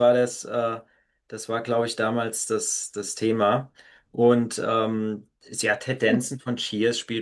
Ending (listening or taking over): listening